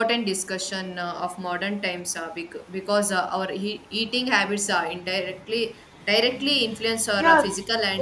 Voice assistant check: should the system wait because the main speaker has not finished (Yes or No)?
No